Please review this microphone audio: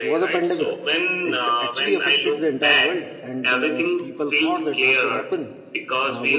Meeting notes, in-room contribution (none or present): present